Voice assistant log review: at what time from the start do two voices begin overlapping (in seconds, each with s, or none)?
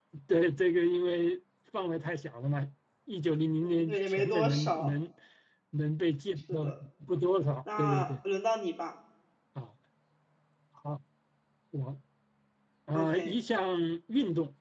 3.6 s